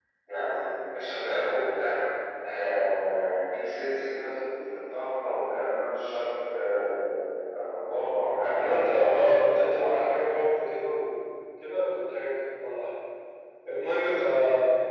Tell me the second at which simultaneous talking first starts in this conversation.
9 s

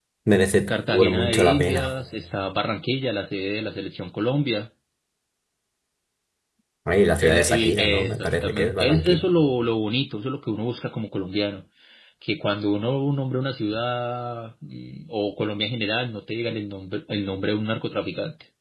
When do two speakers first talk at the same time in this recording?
1 s

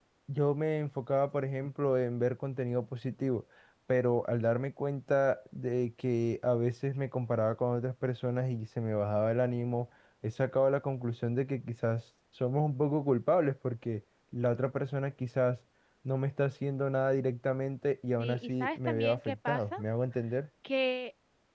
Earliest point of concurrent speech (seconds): 18 s

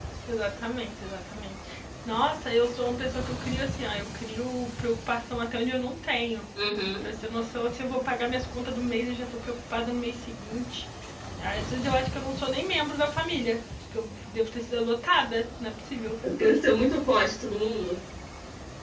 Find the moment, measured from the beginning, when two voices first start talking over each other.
none

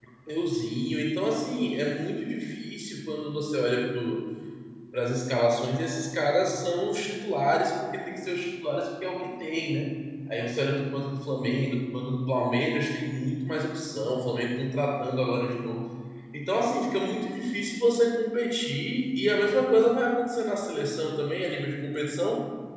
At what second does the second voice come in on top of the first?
none

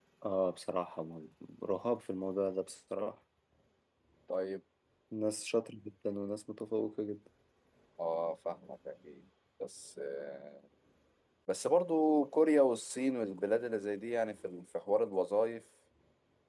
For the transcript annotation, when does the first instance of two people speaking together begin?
none

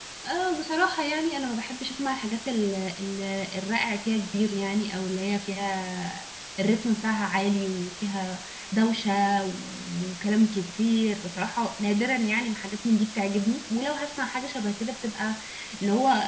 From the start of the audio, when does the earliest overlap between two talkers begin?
none

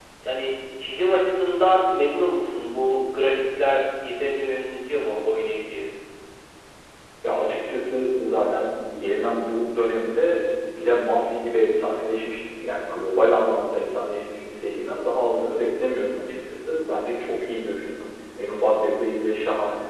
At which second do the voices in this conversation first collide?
none

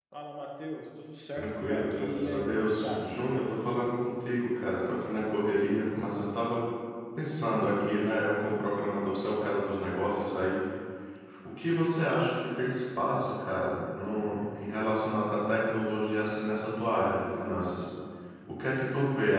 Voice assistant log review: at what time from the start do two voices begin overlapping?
1 s

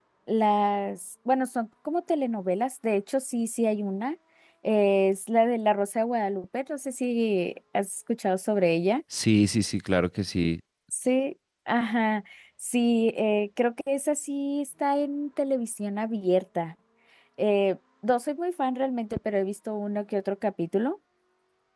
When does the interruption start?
none

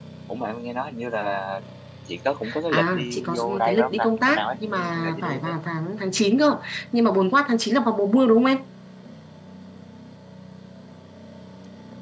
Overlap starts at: 3 s

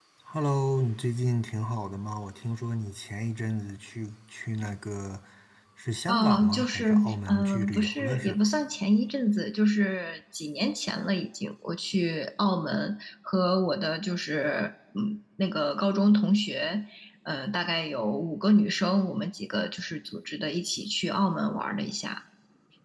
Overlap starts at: 6 s

